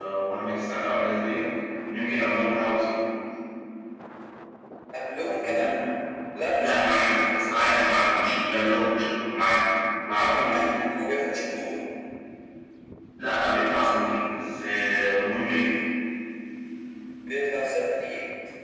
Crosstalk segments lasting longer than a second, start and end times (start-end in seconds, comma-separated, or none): 6.6-8.2